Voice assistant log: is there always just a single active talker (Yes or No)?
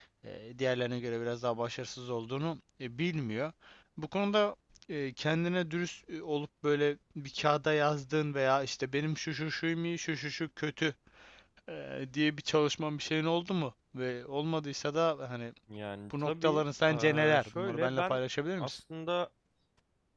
No